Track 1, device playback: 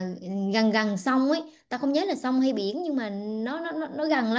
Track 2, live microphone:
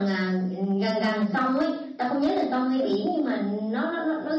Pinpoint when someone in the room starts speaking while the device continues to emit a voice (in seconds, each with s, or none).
none